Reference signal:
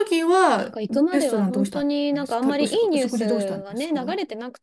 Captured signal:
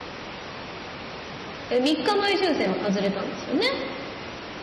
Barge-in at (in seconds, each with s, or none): 1.7 s